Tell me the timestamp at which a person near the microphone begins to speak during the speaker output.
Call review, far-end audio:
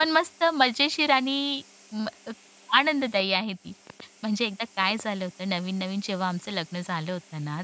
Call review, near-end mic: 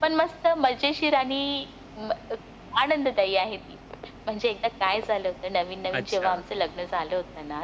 6.0 s

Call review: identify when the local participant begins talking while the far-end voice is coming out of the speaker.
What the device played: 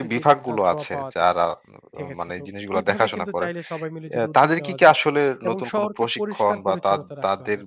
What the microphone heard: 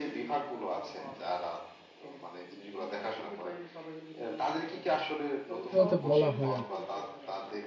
5.5 s

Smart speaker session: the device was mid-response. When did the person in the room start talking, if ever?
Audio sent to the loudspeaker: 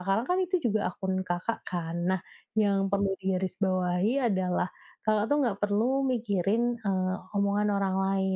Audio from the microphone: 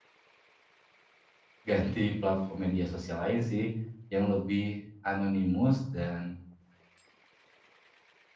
1.7 s

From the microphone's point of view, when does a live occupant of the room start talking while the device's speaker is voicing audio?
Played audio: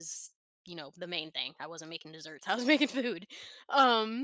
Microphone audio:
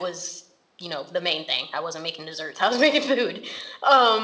none

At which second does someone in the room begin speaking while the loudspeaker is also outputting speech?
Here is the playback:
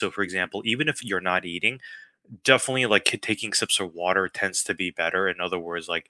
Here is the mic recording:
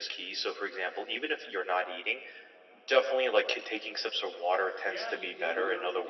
4.8 s

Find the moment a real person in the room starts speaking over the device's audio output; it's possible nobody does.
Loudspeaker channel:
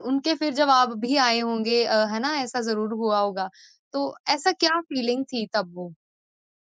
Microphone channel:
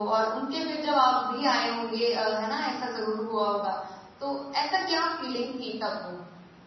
none

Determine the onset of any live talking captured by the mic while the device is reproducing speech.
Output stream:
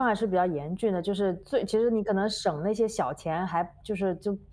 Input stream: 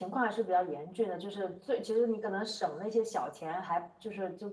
none

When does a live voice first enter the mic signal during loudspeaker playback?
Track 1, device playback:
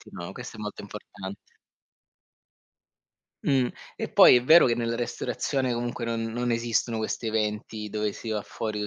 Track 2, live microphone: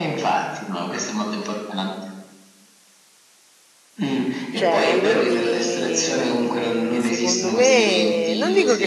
4.5 s

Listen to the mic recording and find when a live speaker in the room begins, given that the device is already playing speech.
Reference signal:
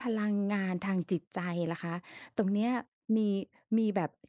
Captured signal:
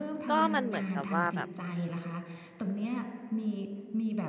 0.3 s

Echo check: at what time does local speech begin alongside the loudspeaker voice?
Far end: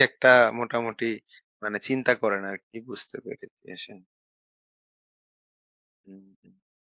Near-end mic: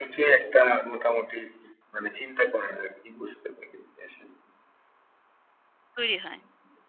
6.0 s

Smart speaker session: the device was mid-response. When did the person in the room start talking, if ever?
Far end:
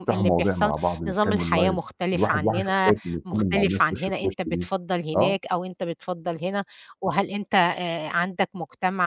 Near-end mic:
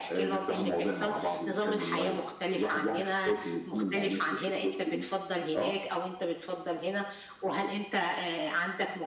none

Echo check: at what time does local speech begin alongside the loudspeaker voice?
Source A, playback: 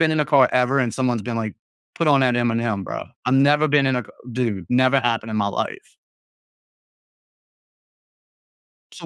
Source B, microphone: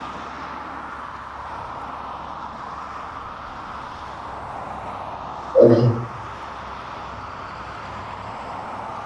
5.5 s

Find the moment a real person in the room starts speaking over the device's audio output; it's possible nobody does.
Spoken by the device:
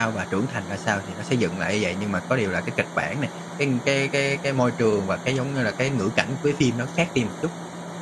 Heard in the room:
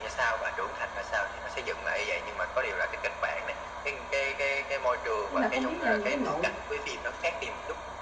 5.3 s

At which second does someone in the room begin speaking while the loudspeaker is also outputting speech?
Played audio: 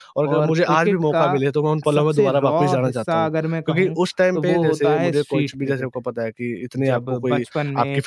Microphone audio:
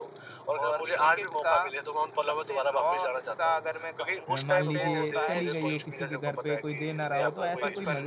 4.3 s

